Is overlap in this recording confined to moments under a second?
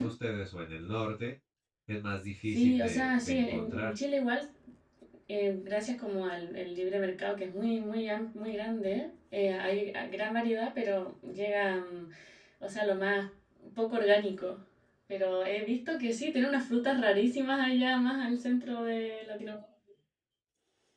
No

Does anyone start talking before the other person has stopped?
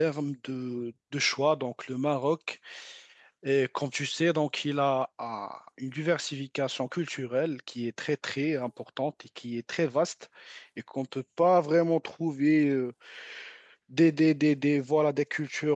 No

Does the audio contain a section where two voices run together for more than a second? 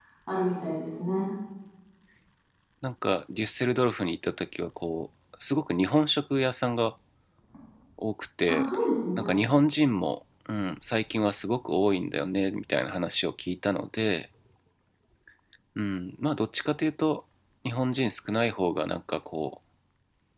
No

